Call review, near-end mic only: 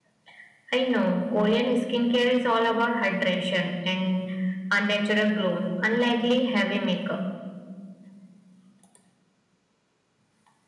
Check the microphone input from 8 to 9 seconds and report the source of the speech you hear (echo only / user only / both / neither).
neither